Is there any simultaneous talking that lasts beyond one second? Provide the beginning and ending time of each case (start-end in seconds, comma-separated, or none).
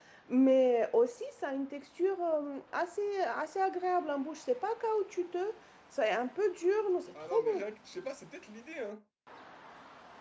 none